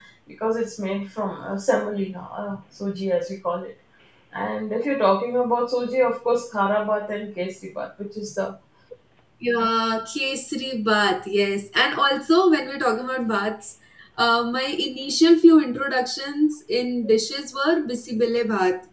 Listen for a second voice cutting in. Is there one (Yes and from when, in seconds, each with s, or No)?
No